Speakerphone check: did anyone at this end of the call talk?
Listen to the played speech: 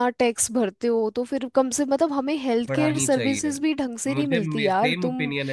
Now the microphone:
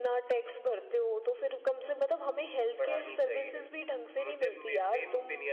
No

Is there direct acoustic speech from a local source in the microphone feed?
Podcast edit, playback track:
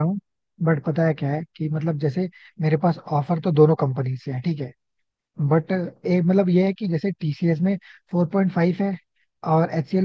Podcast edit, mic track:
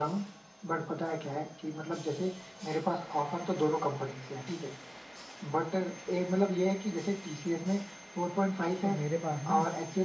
Yes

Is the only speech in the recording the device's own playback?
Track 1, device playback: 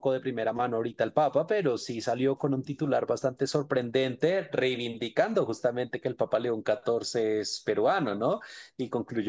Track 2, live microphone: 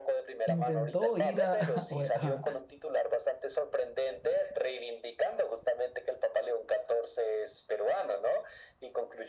No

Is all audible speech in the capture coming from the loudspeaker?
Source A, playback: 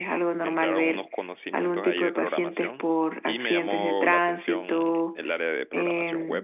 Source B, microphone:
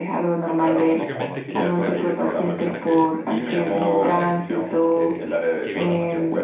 No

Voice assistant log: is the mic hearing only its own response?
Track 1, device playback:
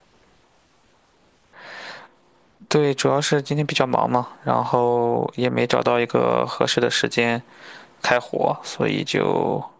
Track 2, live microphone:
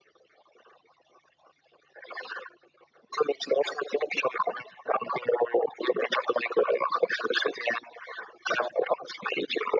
Yes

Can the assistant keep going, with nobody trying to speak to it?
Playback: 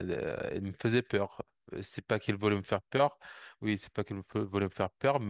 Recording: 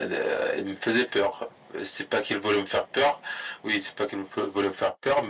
Yes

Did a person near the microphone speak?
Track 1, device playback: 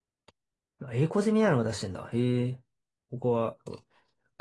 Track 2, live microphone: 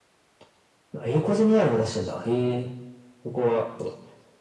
No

